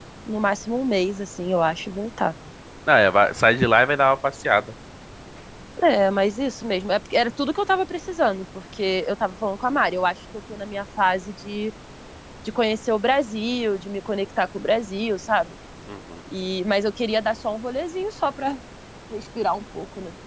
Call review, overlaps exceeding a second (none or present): none